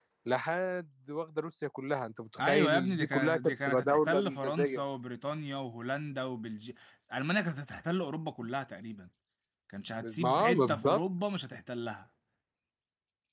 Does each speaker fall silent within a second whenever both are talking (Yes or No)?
No